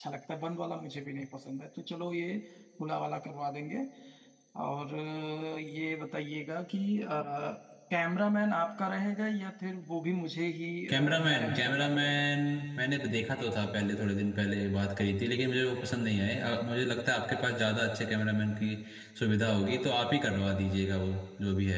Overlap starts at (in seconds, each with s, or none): 10.9 s